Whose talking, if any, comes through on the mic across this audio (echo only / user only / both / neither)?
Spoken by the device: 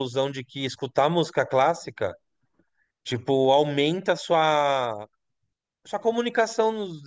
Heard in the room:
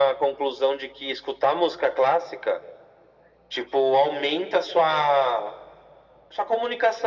echo only